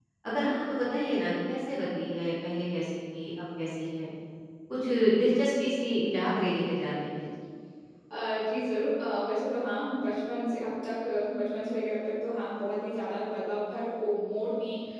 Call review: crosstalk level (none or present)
none